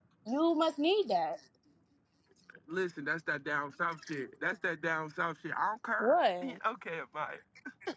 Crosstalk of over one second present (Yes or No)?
No